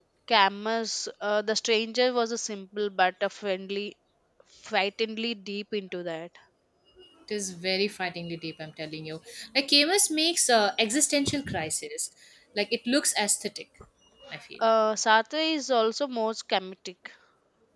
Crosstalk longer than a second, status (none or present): none